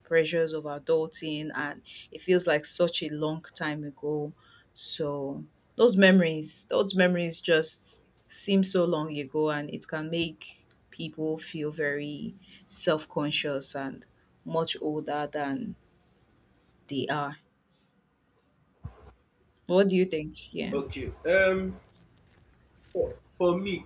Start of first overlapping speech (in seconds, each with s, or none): none